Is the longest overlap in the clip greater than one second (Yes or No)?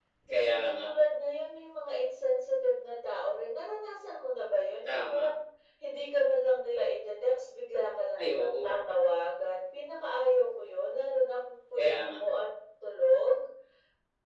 No